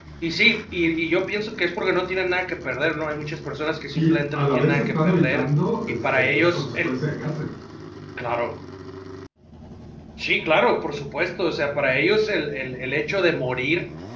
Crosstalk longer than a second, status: present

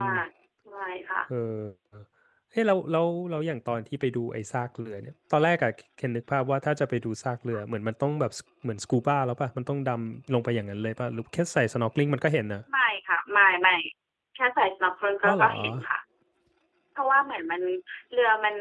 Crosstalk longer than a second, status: none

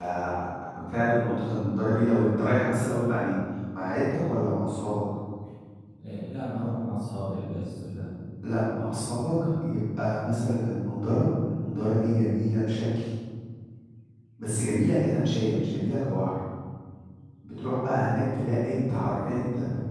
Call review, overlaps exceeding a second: none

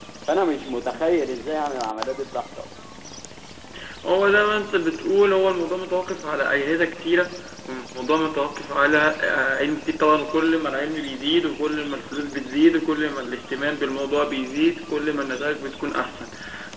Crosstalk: none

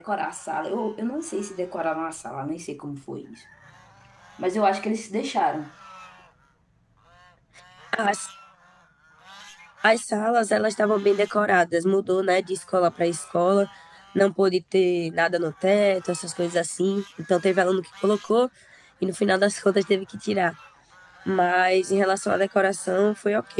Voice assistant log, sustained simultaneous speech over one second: none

